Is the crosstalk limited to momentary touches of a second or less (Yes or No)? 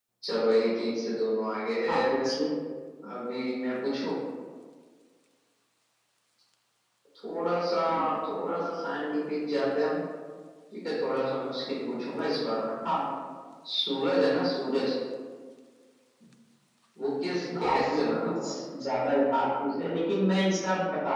No